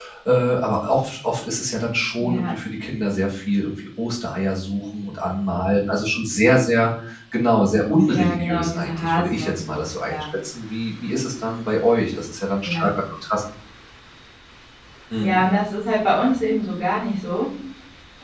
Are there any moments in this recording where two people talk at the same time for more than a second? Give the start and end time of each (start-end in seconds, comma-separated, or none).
8.0-10.2